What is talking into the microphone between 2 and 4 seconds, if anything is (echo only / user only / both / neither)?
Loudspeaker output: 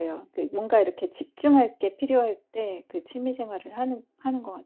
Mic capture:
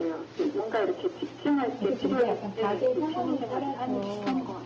both